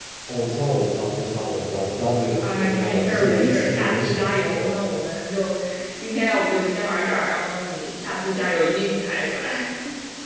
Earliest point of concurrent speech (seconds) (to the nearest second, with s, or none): 2 s